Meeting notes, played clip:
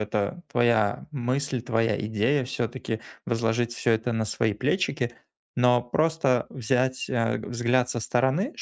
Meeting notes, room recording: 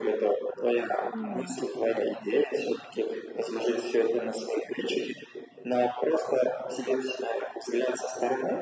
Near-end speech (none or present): present